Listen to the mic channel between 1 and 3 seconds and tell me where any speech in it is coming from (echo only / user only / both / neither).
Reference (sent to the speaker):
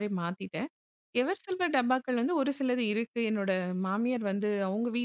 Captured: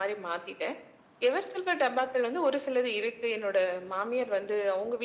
echo only